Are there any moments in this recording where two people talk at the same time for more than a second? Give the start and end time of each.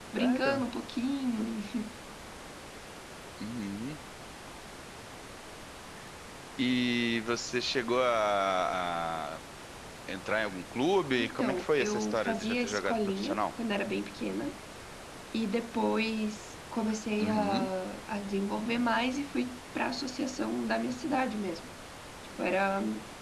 11.2-13.4

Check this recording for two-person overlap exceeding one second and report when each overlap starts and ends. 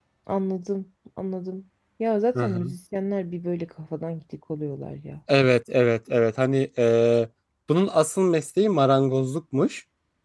none

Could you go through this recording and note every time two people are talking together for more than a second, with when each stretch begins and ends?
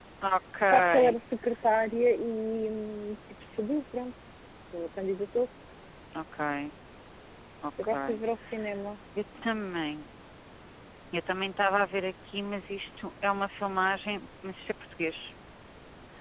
none

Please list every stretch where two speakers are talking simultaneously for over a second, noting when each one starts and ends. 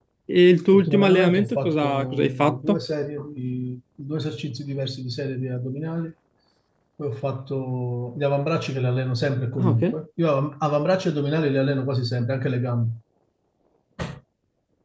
0.7-2.8

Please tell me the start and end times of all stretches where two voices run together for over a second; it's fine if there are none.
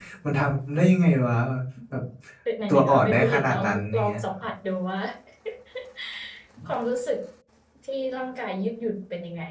2.7-4.2

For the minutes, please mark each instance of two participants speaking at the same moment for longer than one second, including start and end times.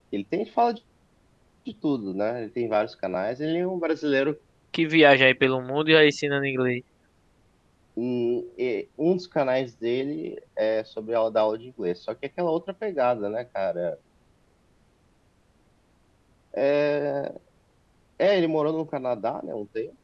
none

